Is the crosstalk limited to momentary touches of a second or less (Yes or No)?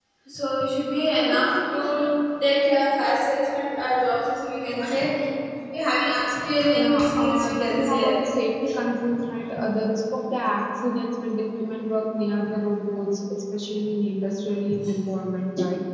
No